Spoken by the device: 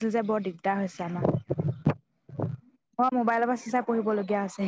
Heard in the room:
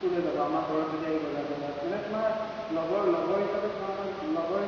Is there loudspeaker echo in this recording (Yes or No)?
No